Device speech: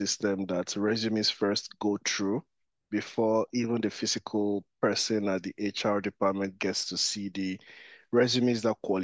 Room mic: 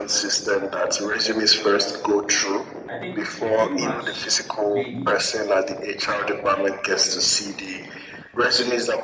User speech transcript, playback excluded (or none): I think pretty much maybe.